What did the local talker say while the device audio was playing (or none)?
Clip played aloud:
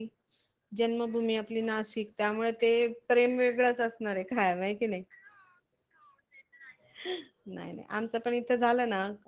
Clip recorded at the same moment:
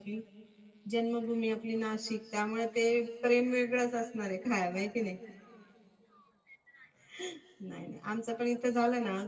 none